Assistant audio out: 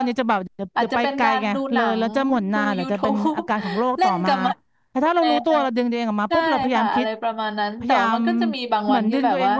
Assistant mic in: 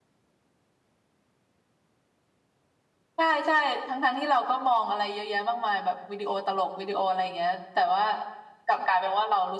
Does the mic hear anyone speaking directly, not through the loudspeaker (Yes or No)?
Yes